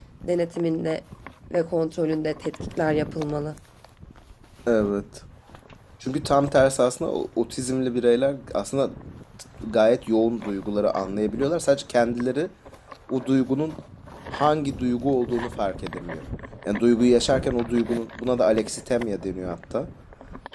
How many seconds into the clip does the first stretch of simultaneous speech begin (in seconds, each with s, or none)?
none